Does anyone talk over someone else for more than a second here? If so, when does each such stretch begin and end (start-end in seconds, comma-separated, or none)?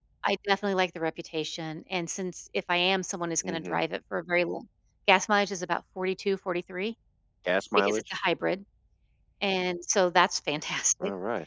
none